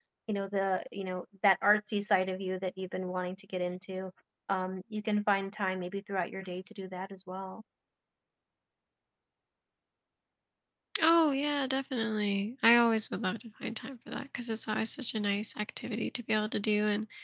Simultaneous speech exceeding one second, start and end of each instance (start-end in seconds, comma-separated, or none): none